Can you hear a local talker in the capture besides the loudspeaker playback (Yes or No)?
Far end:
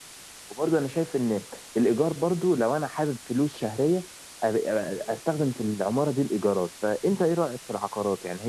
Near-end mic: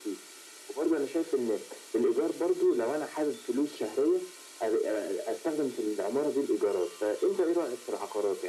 No